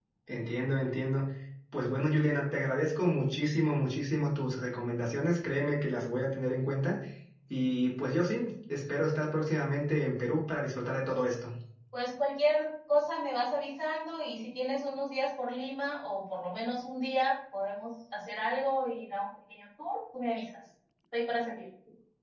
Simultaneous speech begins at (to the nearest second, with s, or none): none